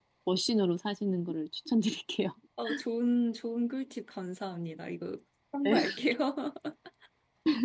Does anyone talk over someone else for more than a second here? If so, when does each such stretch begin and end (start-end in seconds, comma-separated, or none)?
none